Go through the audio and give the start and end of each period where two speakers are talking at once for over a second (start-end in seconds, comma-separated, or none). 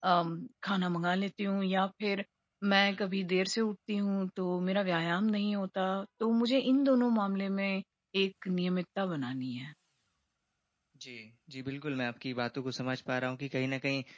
none